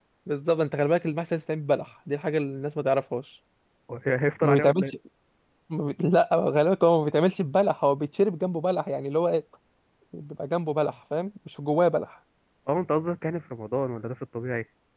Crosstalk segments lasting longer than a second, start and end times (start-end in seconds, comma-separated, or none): none